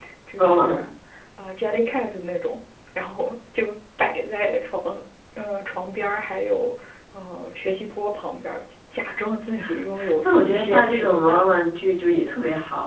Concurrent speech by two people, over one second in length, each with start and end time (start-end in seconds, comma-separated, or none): 10.2-11.5